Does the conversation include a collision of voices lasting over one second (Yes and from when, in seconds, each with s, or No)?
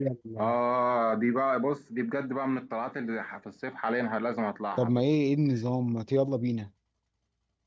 No